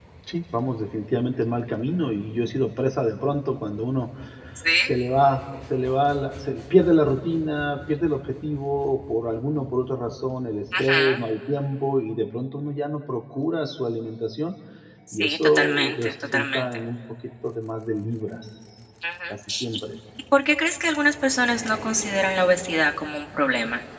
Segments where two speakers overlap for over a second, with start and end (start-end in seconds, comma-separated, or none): 15.1-16.6